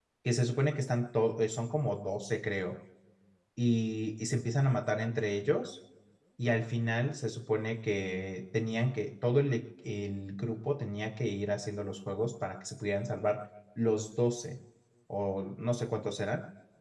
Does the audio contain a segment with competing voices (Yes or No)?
No